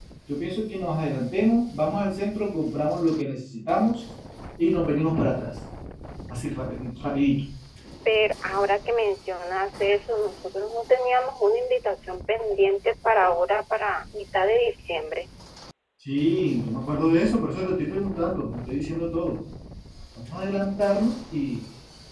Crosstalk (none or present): none